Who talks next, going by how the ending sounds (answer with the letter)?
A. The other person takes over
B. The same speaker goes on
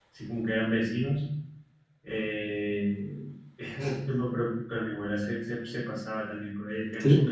B